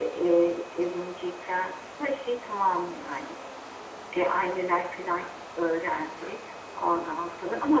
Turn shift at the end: No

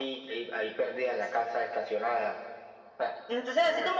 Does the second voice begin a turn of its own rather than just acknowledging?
Yes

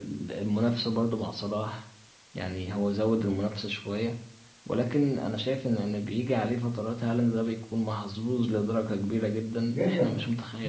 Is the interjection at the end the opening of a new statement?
Yes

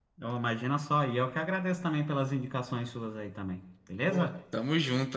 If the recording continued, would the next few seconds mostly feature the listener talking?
Yes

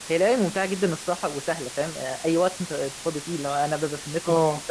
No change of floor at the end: Yes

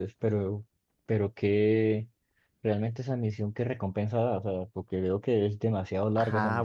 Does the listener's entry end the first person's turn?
Yes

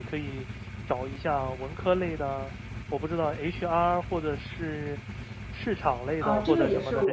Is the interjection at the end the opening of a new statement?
Yes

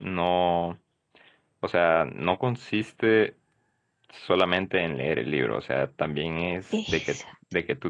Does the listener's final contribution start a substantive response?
No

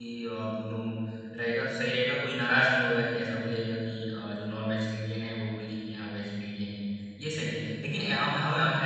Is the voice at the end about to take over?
No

